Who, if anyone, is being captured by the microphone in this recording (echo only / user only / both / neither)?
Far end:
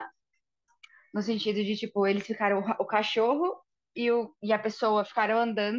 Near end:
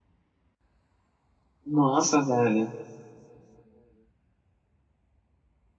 user only